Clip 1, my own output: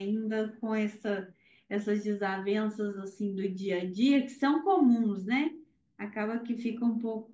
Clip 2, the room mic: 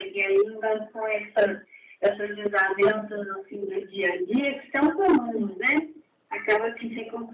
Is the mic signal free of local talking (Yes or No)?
Yes